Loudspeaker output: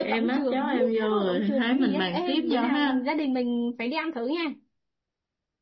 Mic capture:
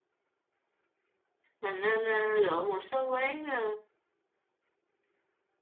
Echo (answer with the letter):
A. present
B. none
B